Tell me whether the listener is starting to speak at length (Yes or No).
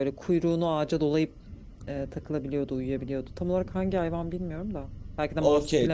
Yes